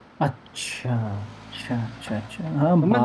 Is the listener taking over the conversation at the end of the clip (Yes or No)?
Yes